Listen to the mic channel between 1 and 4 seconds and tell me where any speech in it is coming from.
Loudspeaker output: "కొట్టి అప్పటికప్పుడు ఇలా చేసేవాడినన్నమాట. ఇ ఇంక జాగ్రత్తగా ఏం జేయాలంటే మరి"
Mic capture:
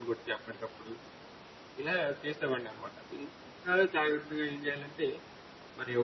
echo only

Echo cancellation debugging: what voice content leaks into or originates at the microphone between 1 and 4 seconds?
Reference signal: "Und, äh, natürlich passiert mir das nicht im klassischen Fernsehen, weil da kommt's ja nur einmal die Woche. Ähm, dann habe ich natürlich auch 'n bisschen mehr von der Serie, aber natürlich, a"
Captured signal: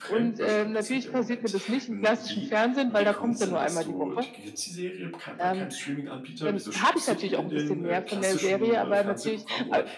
both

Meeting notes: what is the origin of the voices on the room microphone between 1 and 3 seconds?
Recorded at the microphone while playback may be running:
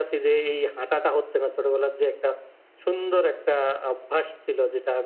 echo only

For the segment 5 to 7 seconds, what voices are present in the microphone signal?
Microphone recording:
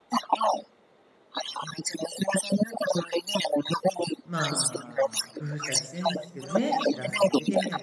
both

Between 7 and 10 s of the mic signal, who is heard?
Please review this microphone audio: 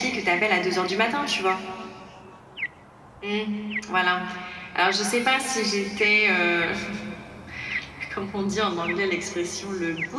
echo only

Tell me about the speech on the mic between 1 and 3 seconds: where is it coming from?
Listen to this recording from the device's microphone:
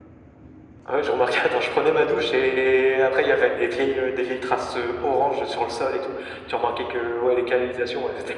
echo only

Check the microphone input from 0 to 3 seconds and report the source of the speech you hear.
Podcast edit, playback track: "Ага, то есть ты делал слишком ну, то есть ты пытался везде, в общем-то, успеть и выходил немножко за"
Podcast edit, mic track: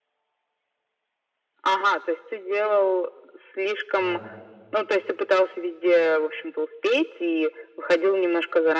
echo only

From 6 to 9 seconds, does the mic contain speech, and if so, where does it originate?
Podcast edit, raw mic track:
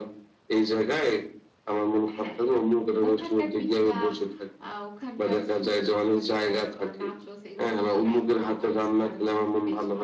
both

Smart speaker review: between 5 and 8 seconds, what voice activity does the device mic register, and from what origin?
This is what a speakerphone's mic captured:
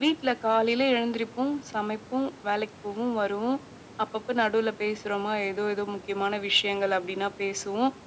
echo only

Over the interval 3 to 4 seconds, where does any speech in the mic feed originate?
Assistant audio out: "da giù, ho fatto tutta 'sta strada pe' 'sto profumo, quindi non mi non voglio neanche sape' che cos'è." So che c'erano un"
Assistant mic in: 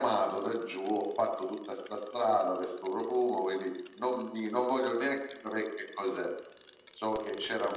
echo only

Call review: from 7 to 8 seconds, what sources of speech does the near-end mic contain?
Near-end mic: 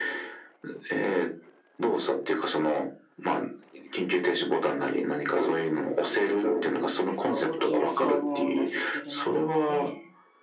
both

